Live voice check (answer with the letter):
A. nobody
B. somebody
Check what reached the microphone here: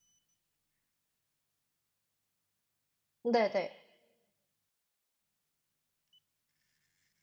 B